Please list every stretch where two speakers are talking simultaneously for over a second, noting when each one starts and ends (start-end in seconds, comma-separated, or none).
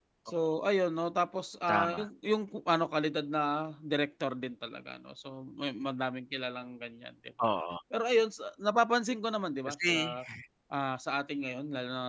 none